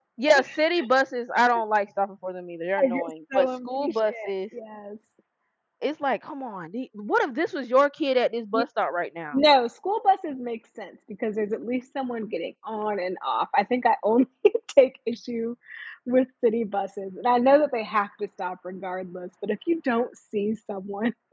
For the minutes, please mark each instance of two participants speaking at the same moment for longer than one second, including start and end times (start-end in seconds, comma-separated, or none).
2.8-4.3